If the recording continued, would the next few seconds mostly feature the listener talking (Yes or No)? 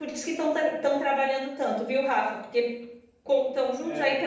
No